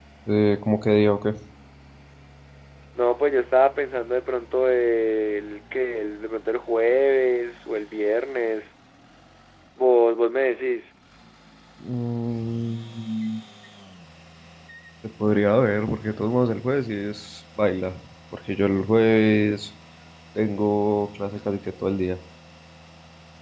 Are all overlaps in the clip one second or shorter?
Yes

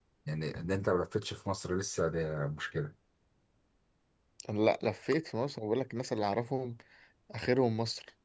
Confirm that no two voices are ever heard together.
Yes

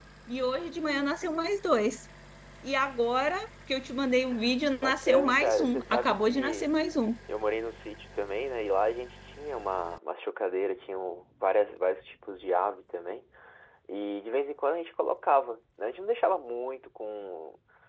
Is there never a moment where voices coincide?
No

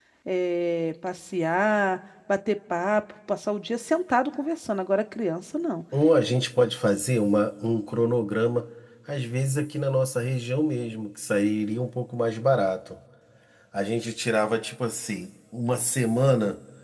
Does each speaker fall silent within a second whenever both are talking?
Yes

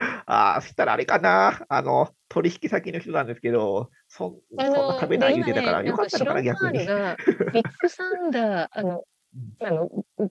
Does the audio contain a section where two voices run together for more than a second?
Yes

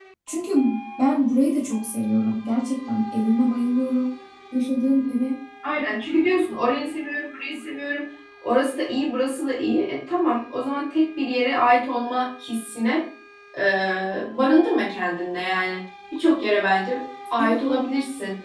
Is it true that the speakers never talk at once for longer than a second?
Yes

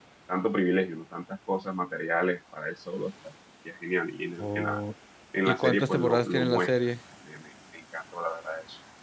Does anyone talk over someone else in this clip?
Yes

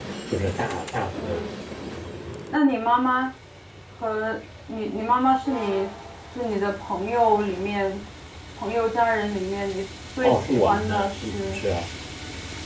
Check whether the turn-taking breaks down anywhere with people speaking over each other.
Yes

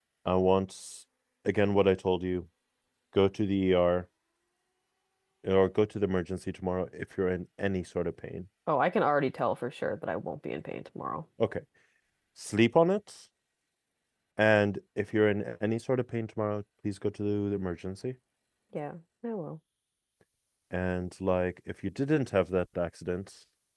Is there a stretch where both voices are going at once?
No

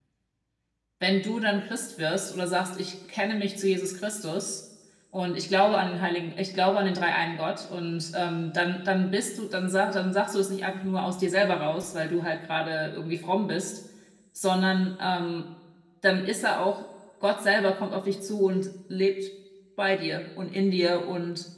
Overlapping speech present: No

